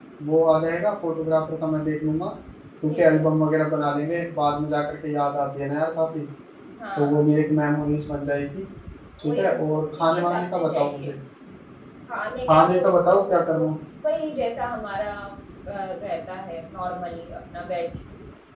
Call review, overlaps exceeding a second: present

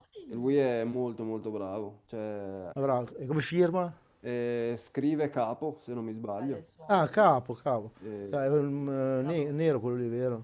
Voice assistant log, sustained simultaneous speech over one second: none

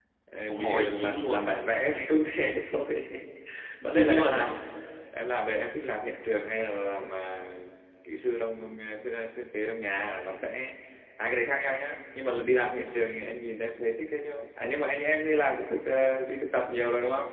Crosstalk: present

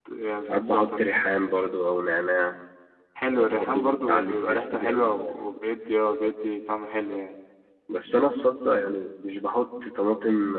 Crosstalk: present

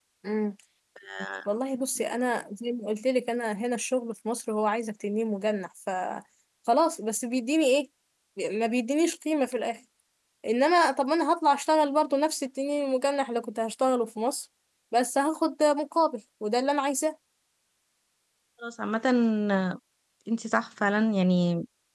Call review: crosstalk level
none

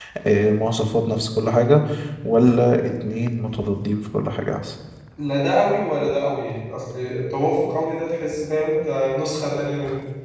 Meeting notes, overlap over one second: none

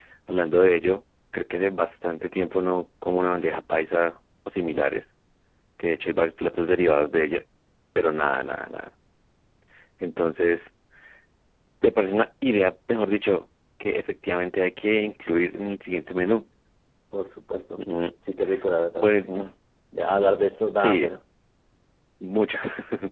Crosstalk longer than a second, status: none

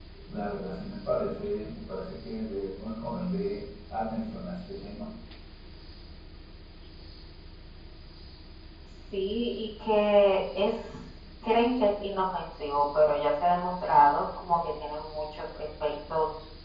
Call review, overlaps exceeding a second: none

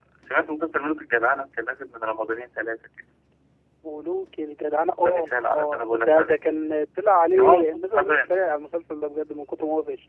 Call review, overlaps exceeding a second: present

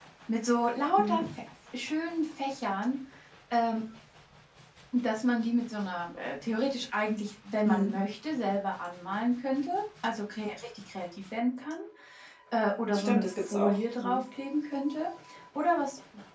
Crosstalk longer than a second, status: present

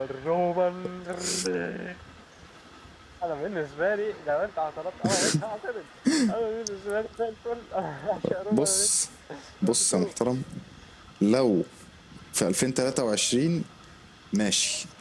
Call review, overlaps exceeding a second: none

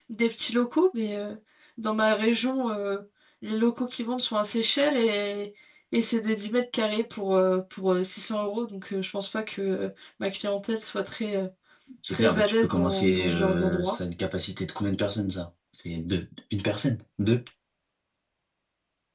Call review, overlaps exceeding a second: present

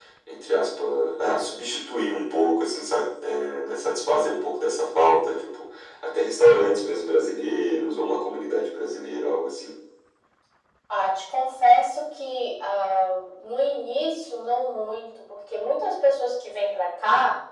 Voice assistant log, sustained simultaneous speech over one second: none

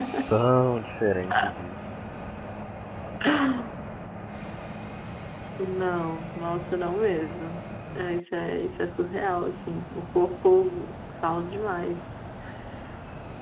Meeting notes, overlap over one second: none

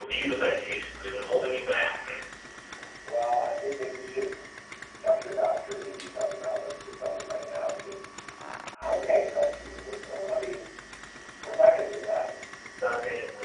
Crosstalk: none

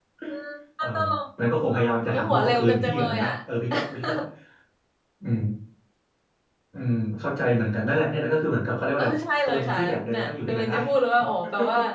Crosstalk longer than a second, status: present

